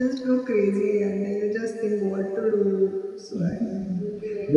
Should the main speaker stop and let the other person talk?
Yes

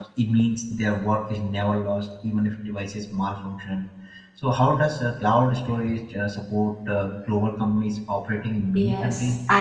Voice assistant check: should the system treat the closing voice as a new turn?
Yes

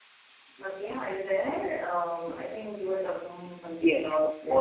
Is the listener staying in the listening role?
No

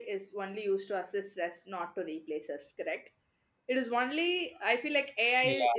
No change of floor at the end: Yes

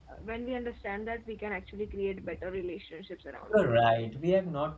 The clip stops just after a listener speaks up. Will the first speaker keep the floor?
No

